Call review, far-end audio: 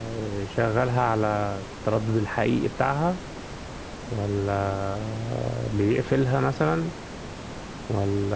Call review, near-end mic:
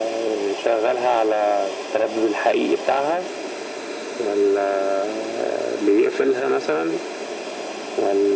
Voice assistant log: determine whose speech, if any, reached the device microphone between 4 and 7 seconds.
echo only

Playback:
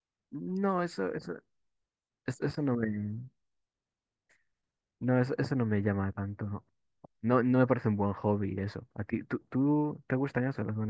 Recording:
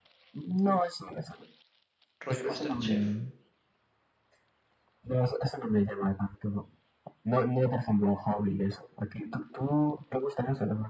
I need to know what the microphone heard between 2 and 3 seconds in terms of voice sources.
both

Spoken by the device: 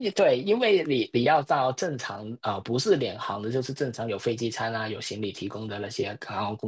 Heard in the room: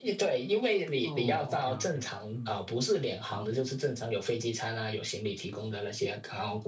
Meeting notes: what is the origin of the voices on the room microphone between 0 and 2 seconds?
both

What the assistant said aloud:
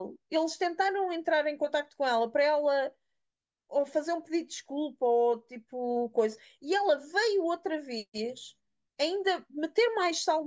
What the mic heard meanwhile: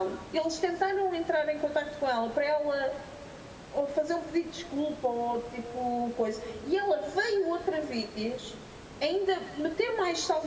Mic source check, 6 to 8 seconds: echo only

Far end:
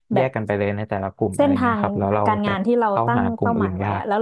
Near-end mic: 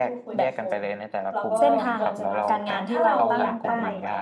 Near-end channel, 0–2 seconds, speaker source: both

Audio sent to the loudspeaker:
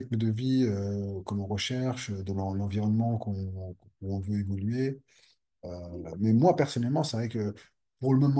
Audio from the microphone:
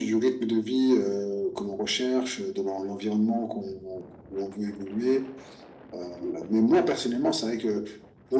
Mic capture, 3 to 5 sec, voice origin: echo only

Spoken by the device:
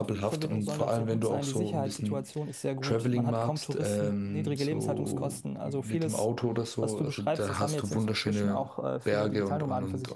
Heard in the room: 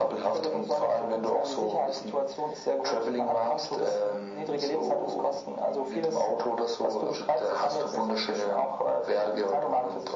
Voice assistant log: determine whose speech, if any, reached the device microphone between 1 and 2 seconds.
echo only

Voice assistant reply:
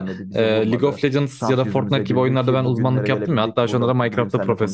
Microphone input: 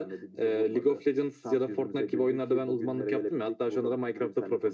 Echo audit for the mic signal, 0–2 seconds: echo only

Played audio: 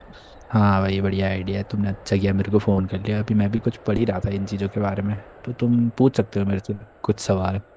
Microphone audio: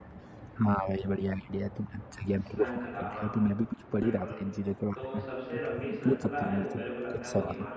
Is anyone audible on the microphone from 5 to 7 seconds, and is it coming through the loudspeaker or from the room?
both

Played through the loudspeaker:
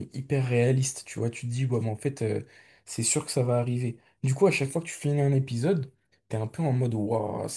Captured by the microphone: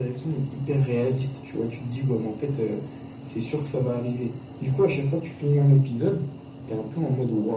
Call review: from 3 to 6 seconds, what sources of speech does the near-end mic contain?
echo only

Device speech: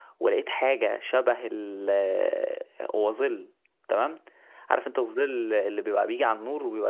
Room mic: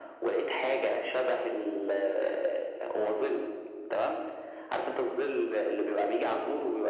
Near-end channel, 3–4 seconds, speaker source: echo only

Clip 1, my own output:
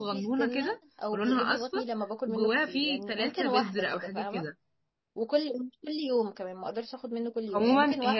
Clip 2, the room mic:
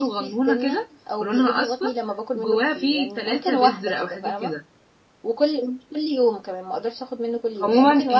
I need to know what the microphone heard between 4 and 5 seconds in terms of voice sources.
echo only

